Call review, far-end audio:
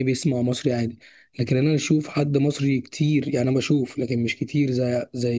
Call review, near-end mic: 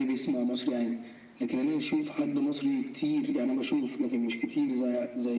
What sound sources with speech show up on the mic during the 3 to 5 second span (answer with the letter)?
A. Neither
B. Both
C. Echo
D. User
C